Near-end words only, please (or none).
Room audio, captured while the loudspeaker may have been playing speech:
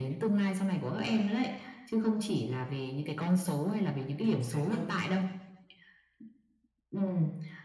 Chính xác đó.